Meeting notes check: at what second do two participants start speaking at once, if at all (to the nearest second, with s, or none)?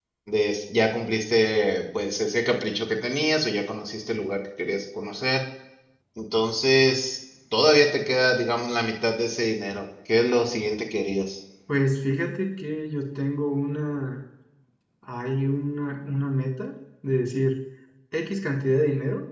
none